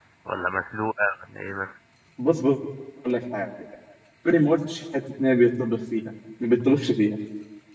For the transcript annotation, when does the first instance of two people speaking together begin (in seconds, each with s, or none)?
none